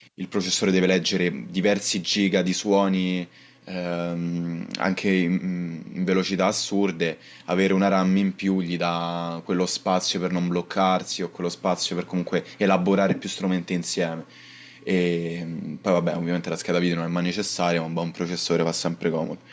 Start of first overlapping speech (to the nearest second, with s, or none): none